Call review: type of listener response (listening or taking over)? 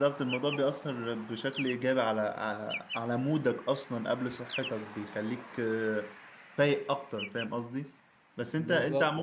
listening